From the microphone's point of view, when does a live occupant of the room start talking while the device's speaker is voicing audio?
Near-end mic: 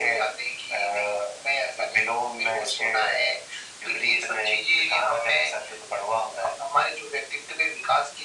none

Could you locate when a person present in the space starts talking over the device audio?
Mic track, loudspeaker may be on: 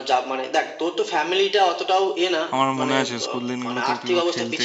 2.5 s

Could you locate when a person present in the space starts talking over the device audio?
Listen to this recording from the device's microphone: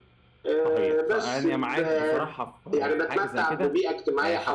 0.6 s

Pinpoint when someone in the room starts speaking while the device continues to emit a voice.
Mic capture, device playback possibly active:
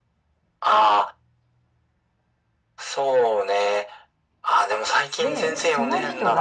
5.2 s

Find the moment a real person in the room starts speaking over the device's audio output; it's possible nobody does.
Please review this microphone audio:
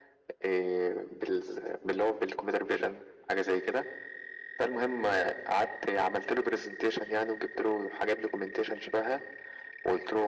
none

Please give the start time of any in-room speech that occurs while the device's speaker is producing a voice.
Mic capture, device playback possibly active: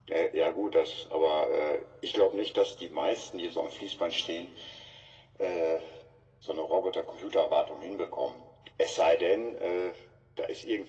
none

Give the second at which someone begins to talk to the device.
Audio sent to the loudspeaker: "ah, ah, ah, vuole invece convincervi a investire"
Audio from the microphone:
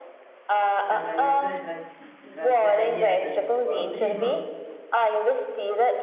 0.8 s

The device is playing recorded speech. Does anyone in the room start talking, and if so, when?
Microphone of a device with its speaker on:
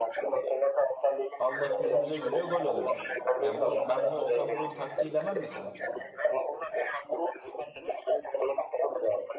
1.4 s

